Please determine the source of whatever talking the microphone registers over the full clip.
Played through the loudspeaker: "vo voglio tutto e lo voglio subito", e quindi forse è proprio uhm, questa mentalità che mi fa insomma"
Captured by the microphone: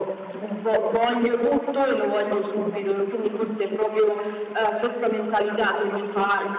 echo only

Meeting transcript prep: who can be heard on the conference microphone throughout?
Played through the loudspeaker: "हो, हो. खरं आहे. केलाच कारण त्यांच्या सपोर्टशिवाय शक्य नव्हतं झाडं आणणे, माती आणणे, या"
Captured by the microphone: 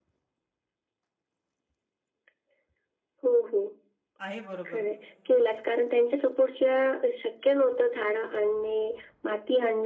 both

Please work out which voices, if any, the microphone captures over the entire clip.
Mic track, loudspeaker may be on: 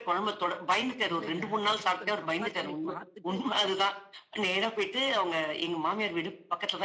both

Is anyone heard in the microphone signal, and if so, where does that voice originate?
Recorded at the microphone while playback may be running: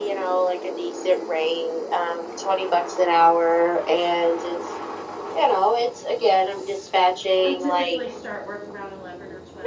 both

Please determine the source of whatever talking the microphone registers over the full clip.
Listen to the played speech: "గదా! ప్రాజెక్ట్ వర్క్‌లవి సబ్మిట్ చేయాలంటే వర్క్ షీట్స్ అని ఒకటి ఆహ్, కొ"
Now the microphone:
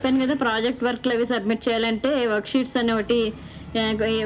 echo only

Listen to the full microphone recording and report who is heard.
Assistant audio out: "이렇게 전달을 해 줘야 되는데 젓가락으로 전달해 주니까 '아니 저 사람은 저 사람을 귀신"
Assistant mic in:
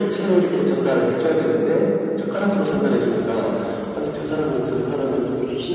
echo only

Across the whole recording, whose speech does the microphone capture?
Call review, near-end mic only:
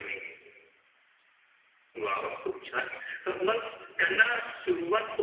echo only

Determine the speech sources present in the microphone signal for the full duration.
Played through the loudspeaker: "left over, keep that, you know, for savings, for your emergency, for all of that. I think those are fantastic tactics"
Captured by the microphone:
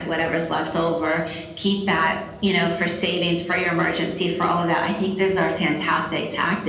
echo only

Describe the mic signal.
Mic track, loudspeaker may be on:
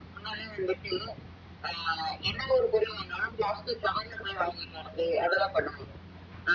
echo only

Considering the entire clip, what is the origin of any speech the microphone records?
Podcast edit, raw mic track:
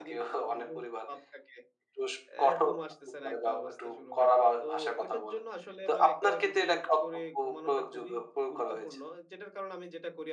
both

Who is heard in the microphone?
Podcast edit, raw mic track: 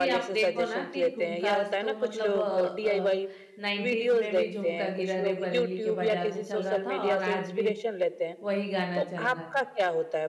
both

